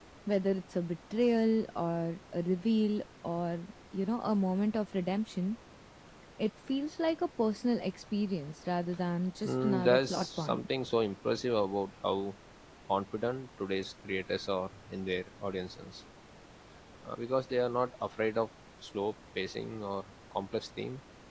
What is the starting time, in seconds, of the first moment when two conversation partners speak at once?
9.4 s

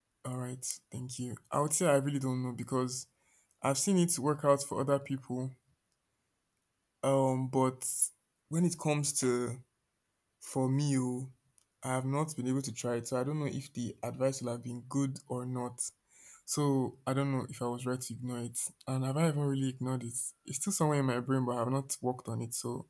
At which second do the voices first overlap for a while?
none

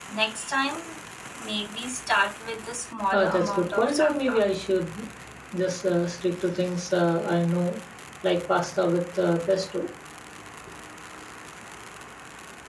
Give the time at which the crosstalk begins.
3.1 s

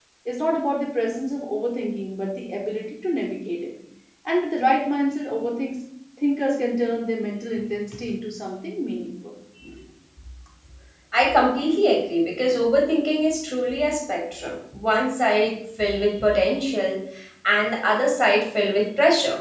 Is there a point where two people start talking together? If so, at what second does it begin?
none

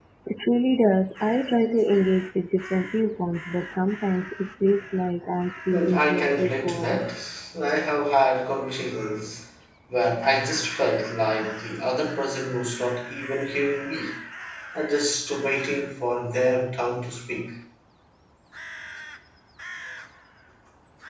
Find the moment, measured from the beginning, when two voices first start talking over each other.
5.7 s

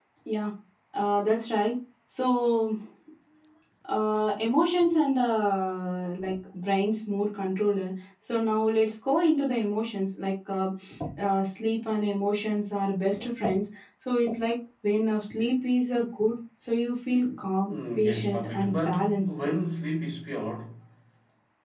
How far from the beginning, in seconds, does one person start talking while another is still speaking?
17.7 s

